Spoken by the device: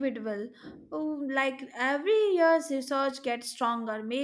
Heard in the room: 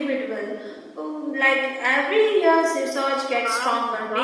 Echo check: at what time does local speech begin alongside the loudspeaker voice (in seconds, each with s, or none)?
3.3 s